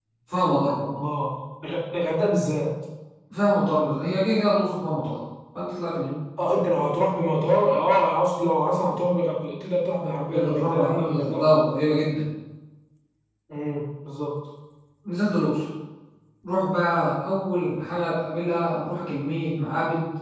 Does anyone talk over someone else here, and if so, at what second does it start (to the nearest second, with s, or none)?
10 s